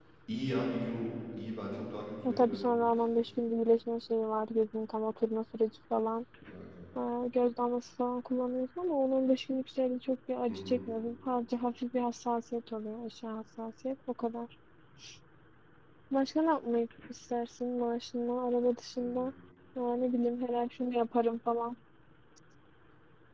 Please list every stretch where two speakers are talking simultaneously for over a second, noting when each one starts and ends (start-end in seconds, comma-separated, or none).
none